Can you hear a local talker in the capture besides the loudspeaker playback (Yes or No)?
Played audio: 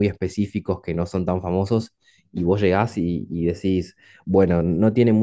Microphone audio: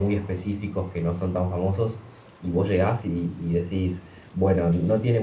No